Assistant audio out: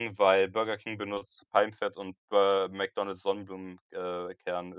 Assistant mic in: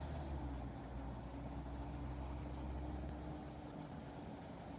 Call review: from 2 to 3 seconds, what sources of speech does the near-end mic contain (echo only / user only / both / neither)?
neither